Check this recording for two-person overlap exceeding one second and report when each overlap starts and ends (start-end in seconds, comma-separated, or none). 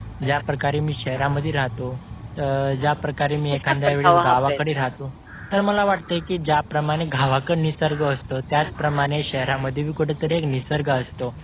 3.5-4.9